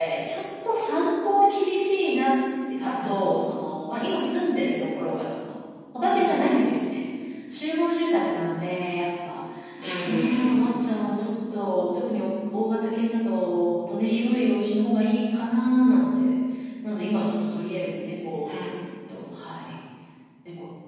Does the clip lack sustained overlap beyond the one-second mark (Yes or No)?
Yes